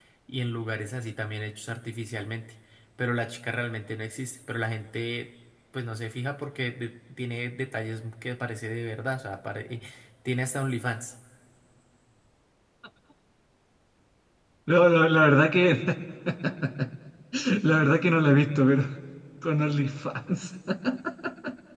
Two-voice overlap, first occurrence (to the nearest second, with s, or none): none